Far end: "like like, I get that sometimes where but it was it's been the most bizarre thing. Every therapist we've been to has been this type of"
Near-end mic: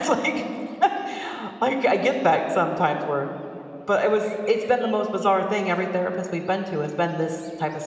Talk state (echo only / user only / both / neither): echo only